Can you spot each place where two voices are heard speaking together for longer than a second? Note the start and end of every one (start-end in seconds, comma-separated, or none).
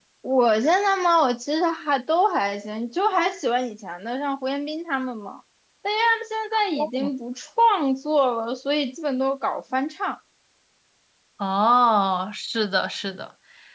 none